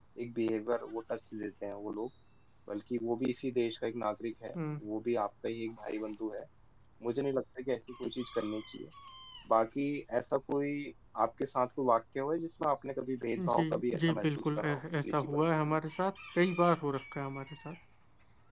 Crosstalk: present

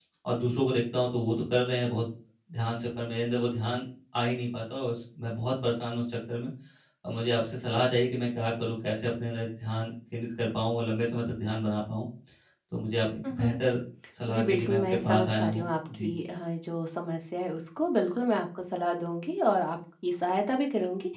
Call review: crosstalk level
present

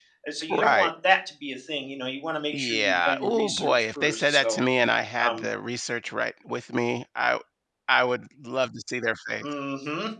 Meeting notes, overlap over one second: present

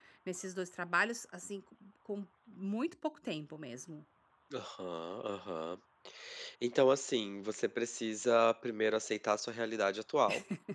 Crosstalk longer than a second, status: none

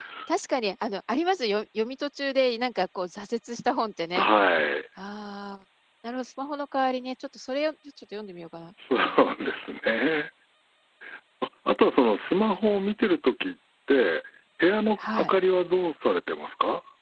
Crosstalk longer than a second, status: none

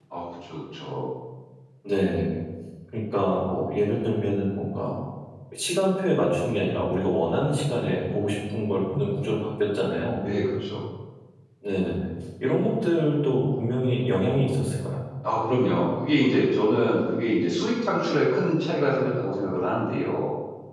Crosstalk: none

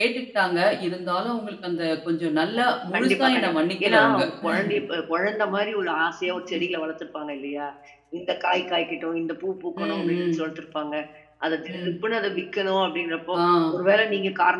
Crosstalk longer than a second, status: present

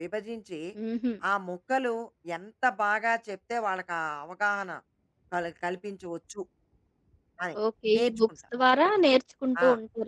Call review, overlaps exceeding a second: none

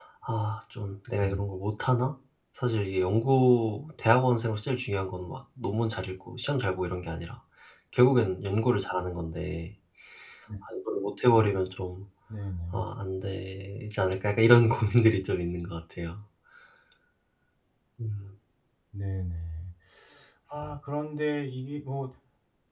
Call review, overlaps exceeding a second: none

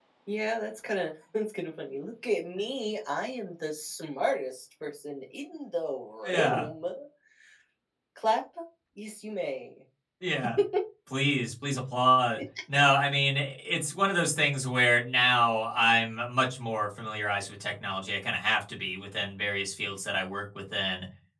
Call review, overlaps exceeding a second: none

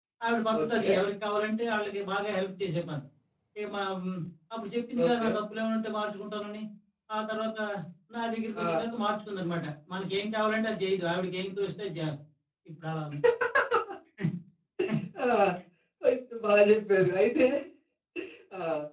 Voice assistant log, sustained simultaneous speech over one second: none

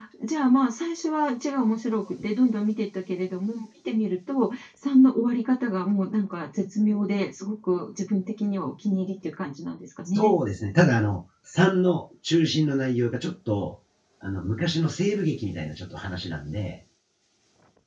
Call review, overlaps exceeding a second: none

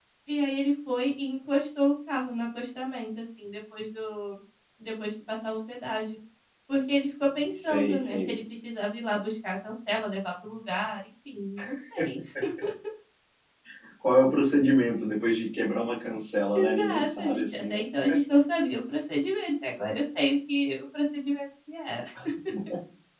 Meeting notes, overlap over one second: present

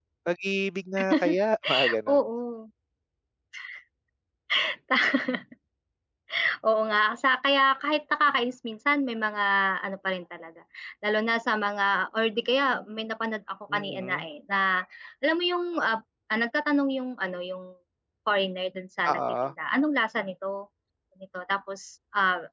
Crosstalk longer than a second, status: none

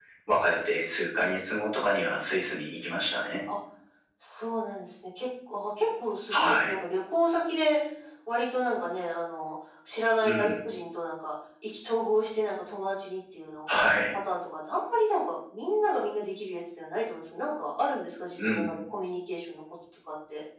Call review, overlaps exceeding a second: none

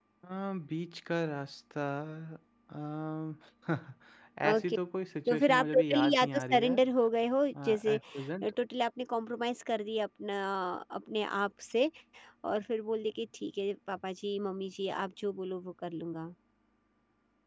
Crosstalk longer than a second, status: present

